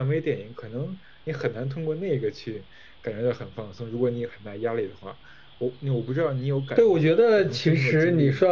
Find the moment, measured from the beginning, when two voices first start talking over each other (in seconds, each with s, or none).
6.8 s